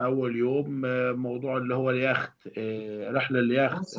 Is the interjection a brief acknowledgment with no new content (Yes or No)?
No